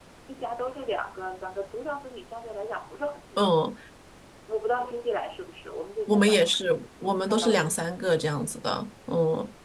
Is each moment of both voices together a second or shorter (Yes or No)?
No